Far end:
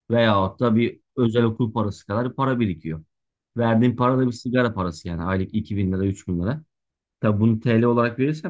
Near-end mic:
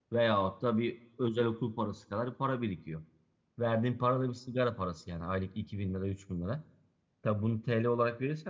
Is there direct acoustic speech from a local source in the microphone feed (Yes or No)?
No